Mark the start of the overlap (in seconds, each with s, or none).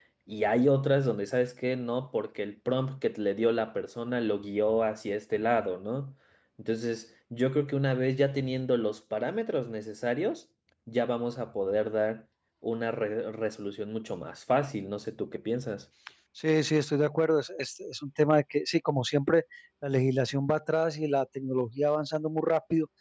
none